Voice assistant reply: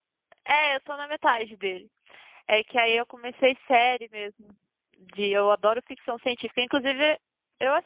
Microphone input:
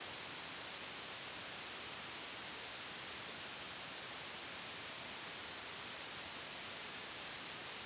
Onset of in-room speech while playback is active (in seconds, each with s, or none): none